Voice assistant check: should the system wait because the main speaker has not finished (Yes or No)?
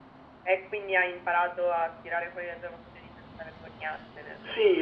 No